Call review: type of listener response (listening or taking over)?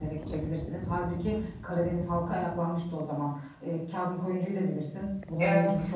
listening